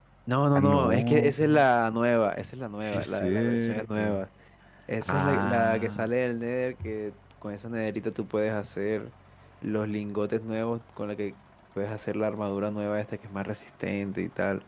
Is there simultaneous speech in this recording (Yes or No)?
Yes